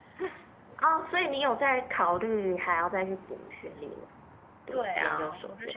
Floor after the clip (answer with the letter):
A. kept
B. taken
B